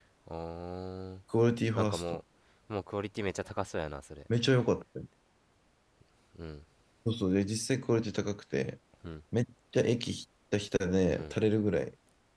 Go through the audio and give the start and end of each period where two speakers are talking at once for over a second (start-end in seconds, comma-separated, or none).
none